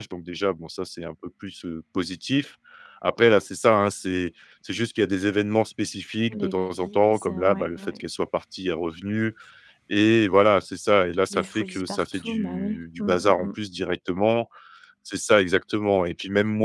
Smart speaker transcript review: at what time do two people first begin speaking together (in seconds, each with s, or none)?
6.3 s